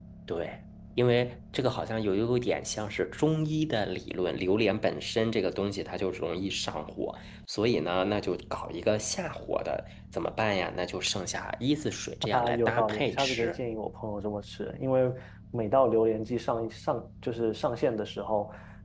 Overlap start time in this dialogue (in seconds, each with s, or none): 12.2 s